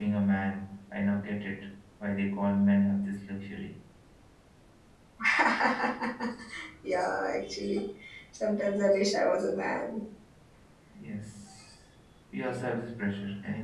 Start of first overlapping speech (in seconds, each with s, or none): none